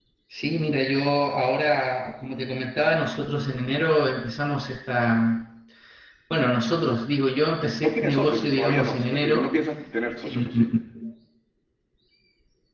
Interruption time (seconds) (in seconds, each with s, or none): 7.8 s